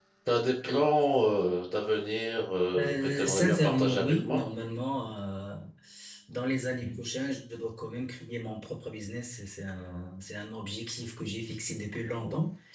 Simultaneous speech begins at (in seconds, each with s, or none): 2.8 s